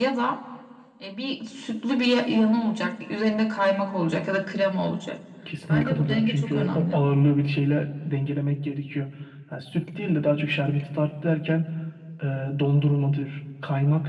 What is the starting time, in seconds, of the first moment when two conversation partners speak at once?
6 s

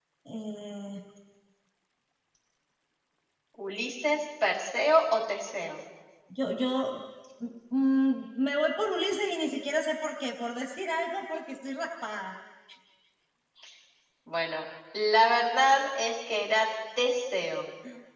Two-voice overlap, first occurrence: none

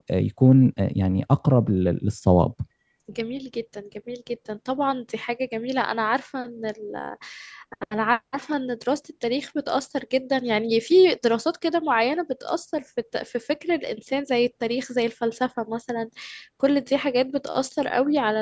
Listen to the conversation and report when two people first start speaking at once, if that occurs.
none

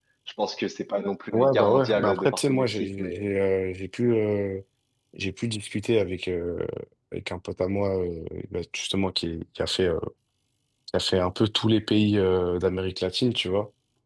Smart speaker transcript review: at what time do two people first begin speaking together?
1 s

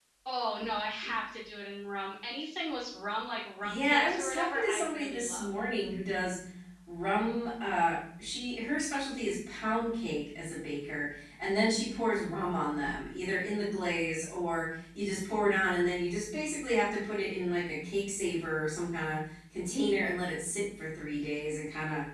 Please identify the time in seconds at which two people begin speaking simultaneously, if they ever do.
4 s

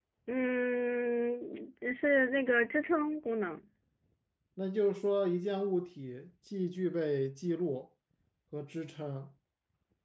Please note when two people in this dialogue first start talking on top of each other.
none

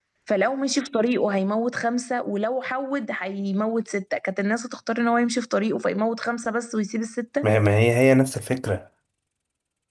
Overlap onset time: none

